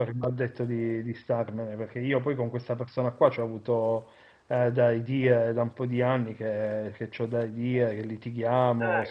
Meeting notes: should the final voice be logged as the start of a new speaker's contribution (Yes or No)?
Yes